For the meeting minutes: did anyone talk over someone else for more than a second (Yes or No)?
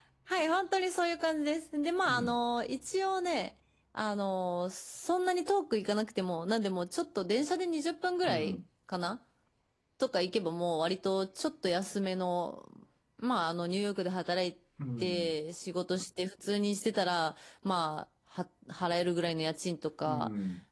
No